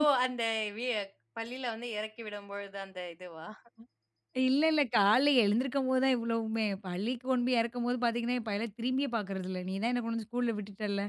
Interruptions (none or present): none